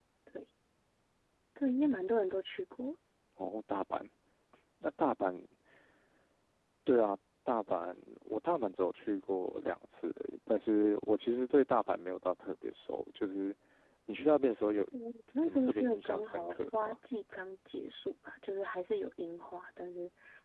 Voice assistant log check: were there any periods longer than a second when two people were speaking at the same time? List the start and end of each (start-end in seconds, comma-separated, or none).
15.3-17.0